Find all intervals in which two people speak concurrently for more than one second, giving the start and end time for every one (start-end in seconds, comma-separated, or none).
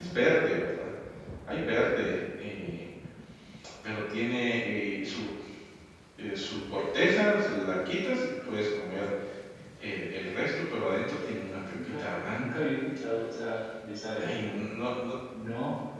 11.4-12.7